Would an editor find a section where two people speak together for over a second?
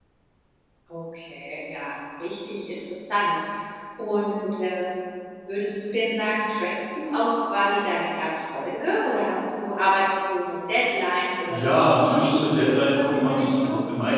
Yes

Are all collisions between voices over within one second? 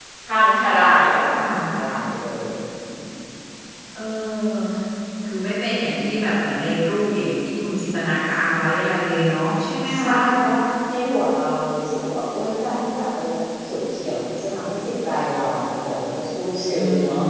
Yes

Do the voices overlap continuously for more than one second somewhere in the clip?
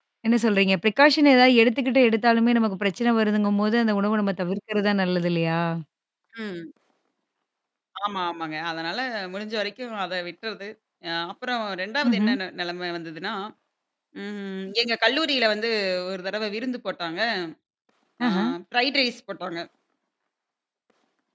No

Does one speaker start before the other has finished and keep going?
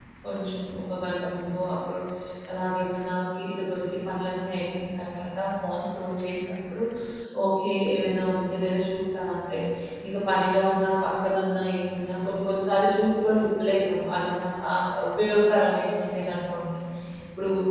No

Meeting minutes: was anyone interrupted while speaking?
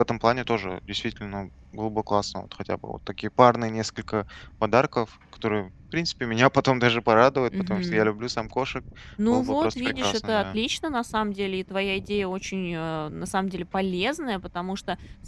Yes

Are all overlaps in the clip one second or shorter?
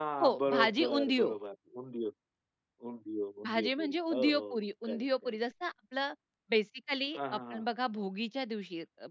No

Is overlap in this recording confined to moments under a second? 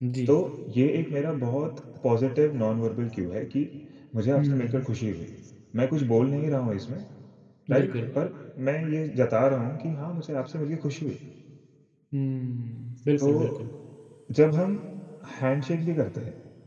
Yes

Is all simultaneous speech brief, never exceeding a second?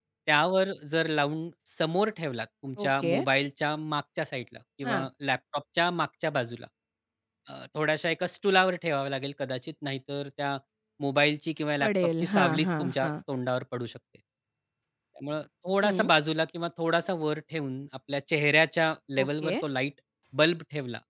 No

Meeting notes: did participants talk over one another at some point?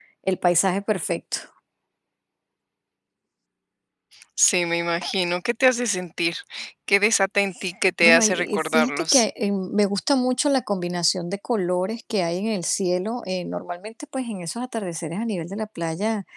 Yes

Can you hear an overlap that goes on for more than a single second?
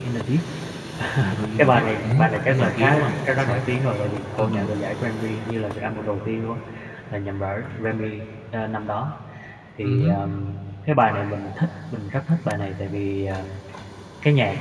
Yes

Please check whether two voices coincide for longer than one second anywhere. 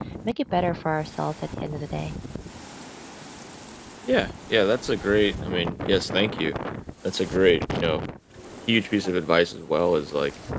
No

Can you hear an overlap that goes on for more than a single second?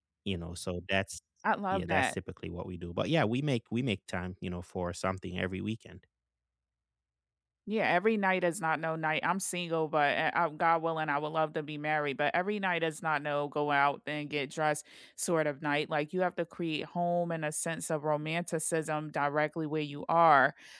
No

